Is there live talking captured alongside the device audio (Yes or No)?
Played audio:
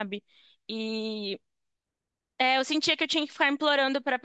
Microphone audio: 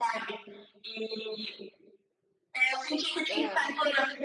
Yes